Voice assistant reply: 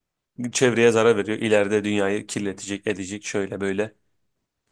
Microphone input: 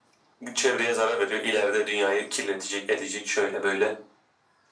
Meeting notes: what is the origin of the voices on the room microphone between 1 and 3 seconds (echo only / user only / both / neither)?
echo only